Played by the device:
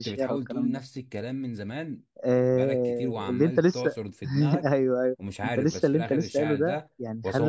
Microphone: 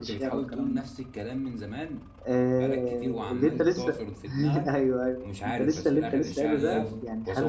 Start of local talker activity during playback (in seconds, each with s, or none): 6.5 s